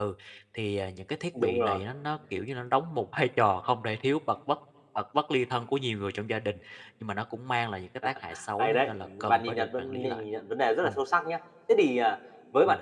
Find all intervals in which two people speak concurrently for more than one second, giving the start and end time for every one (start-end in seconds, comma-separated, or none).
8.6-10.2